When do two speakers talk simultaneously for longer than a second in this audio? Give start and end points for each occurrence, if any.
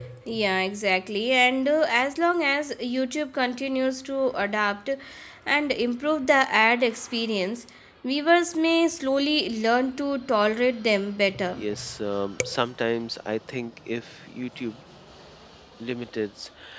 none

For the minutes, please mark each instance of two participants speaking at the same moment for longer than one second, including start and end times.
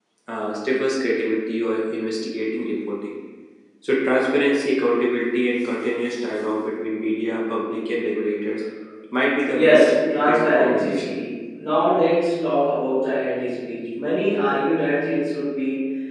9.5-11.2

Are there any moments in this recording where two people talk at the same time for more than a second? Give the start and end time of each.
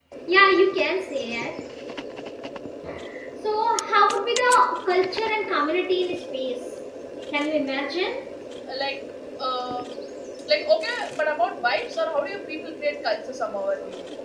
none

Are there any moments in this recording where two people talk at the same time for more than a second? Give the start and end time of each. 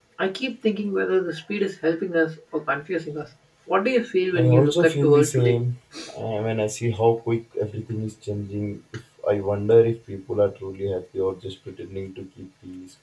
4.3-5.6

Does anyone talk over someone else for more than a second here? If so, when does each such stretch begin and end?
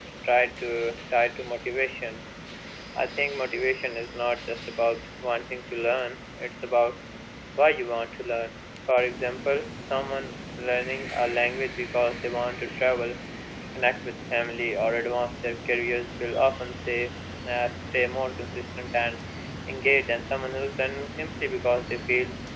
none

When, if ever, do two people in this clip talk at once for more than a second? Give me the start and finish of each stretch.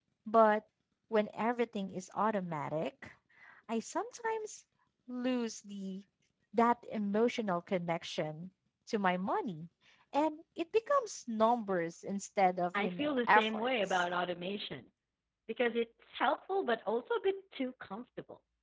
12.8-14.0

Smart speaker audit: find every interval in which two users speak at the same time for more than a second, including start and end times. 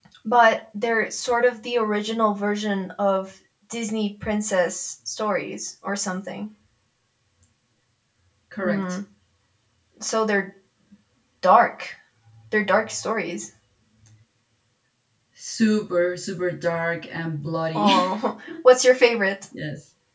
none

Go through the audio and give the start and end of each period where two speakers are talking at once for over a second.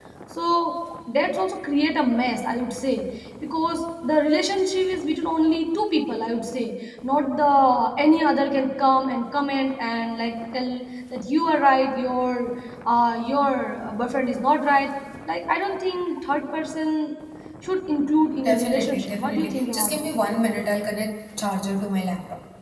18.4-20.1

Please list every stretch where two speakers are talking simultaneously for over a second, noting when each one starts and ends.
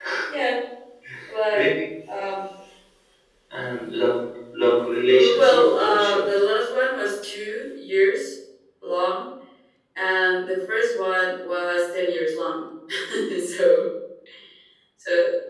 5.1-6.3

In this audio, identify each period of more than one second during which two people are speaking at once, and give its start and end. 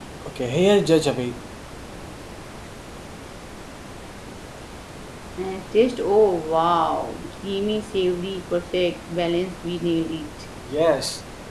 none

